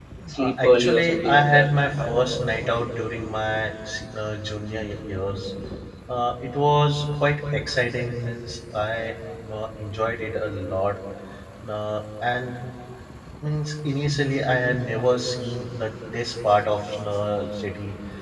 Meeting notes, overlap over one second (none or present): present